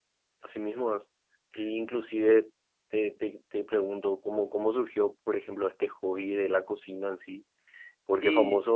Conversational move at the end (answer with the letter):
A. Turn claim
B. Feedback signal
B